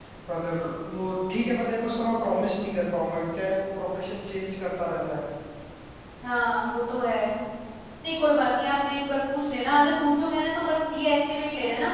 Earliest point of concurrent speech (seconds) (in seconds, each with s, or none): none